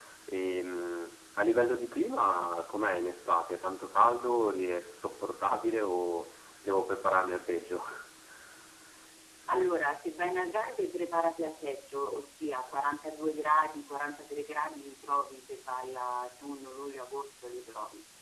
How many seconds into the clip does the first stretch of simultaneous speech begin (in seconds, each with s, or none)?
none